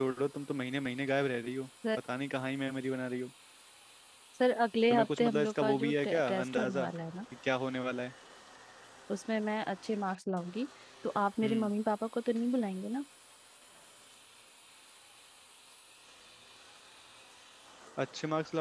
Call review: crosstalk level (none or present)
present